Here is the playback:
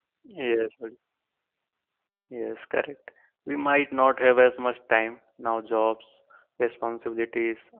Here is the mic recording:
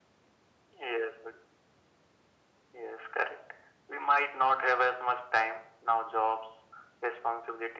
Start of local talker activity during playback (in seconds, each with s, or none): none